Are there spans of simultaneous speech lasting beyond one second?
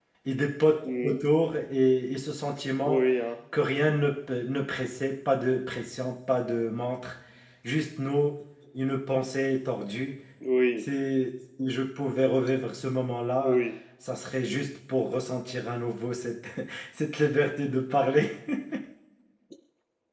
No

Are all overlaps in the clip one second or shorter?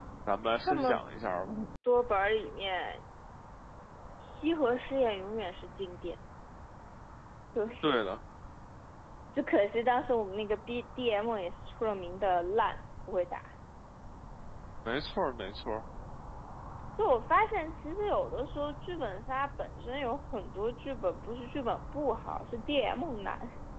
Yes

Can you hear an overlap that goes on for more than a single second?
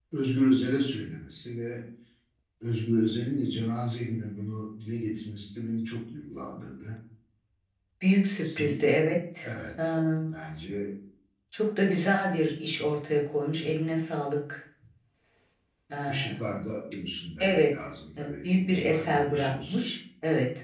Yes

